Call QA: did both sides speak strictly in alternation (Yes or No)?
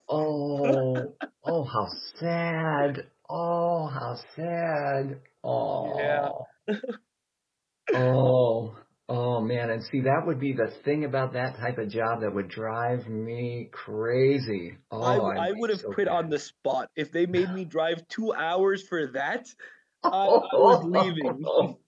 No